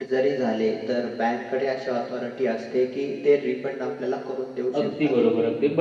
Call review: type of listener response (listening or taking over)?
taking over